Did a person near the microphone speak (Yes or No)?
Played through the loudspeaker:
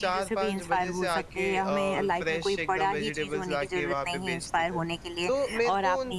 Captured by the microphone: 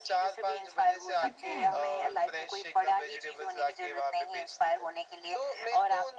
Yes